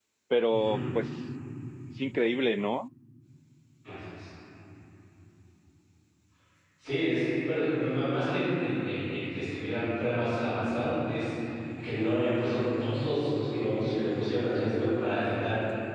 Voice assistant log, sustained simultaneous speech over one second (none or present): none